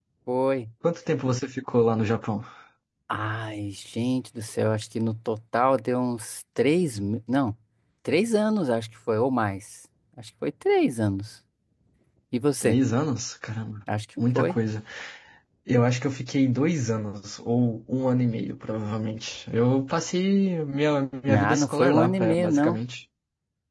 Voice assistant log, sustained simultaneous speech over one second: present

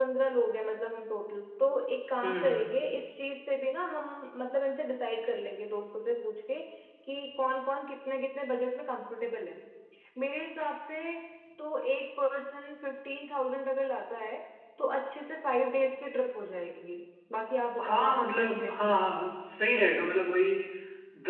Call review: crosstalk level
present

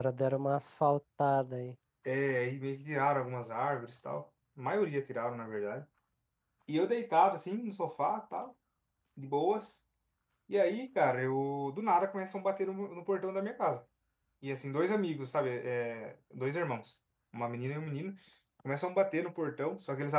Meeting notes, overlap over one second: none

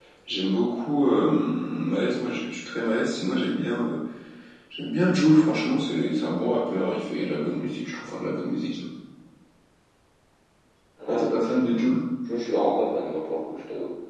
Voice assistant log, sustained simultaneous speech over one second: none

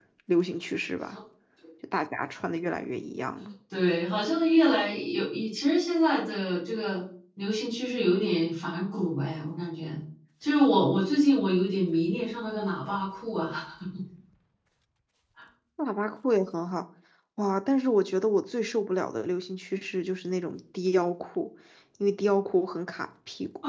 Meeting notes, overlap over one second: none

